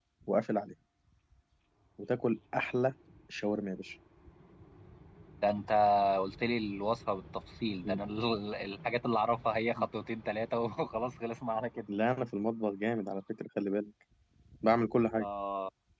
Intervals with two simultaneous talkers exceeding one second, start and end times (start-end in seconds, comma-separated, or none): none